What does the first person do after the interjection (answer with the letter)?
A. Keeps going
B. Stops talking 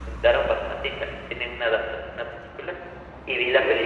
A